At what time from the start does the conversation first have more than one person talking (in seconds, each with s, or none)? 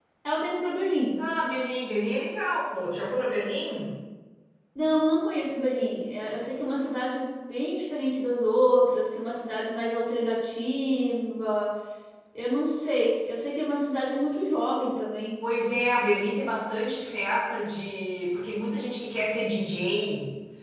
none